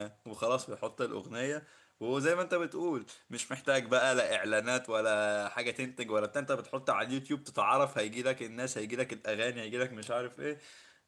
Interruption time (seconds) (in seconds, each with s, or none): none